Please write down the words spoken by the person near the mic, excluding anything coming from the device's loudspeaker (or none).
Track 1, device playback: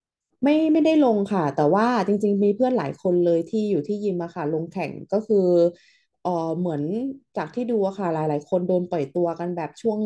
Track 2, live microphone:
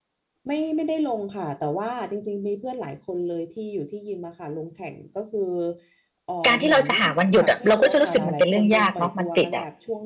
การที่เราจะหาวันหยุดอะเราก็จะรู้สึกมันเป็นเรื่องยากเนาะมันติดอะ